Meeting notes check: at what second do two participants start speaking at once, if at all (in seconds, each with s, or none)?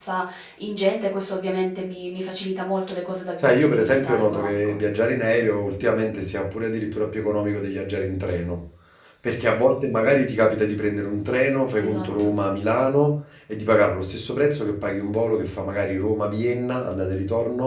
3.4 s